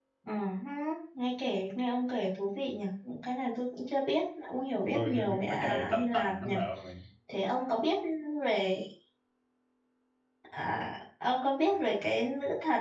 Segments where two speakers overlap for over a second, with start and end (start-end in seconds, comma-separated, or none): 4.9-6.5